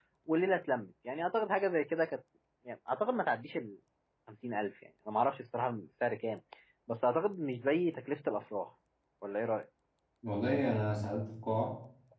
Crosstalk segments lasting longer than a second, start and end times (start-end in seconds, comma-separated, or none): none